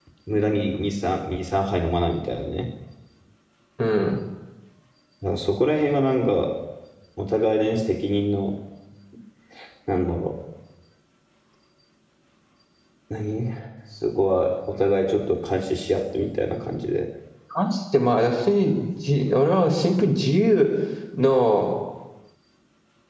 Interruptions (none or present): none